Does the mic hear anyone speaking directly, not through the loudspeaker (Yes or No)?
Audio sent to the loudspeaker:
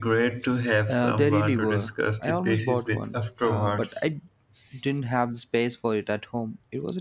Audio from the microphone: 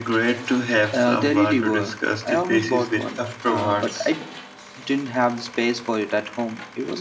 No